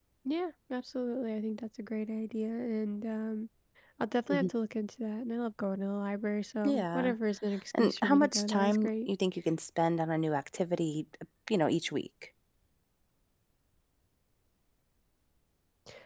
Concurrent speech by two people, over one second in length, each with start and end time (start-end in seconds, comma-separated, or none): 7.8-9.1